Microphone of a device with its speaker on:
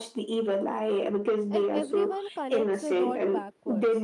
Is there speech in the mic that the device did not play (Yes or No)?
Yes